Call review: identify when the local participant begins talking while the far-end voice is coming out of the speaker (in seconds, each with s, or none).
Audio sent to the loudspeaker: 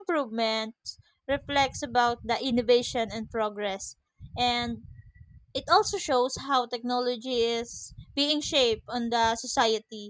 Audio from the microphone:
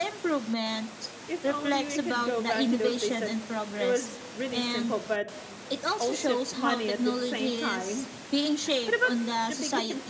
1.3 s